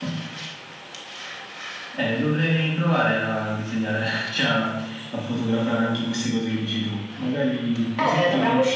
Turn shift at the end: Yes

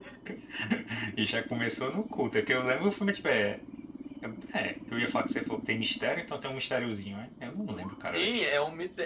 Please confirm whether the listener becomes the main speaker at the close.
Yes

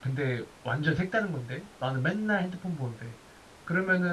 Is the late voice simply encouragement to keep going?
Yes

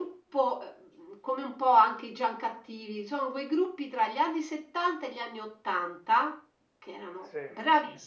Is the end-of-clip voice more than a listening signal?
No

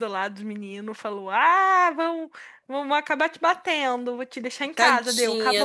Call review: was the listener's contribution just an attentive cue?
No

